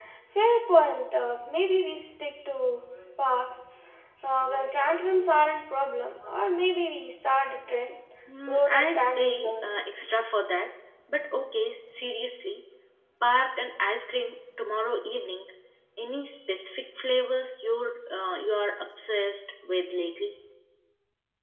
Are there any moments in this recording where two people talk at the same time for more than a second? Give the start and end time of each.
8.5-9.8

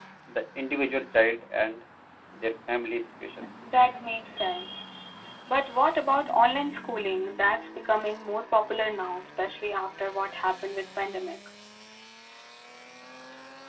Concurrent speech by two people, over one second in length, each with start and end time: none

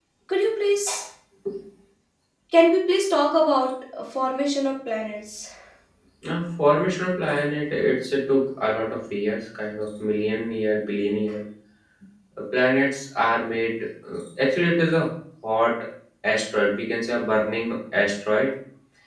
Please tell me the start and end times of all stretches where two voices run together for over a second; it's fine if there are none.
none

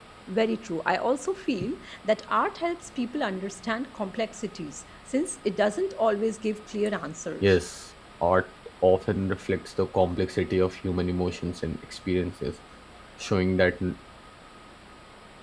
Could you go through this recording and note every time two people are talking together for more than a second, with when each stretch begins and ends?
none

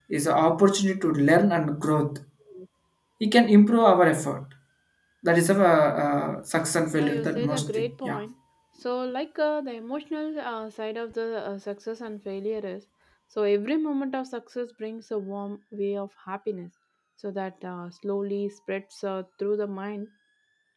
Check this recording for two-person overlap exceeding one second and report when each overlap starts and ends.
6.9-8.2

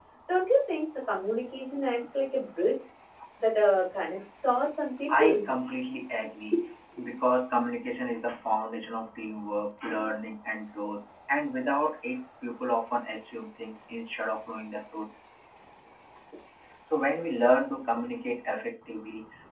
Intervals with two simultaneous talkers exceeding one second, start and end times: none

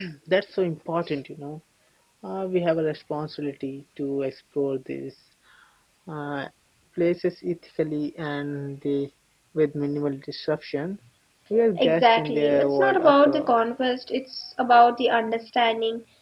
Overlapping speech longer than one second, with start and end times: 11.8-13.5

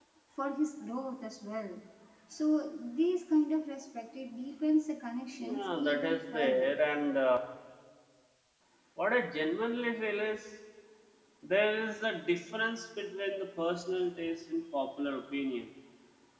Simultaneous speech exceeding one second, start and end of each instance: 5.4-6.7

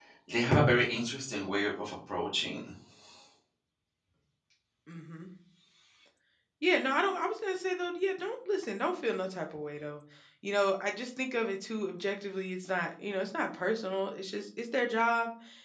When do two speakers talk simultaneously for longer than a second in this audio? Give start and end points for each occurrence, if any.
none

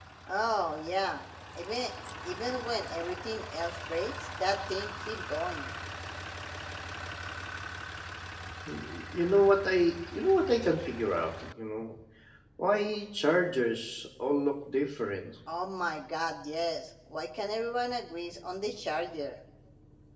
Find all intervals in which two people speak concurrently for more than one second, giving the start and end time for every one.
none

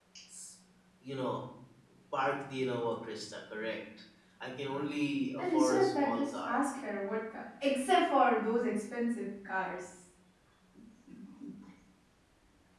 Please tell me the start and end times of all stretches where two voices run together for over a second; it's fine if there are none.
5.4-6.6

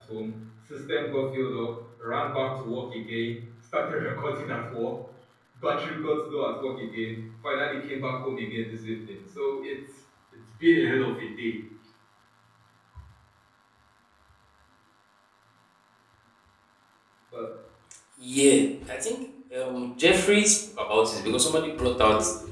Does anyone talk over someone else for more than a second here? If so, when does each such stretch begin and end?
none

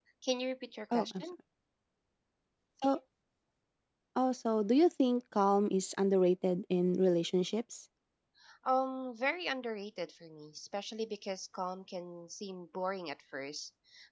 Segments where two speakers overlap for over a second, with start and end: none

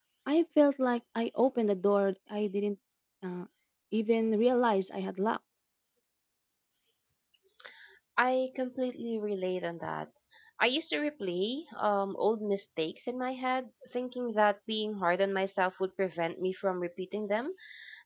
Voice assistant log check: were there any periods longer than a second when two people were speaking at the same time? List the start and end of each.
none

